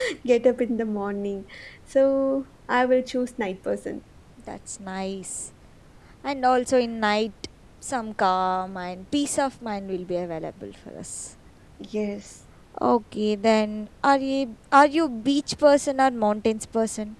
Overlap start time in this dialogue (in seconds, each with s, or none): none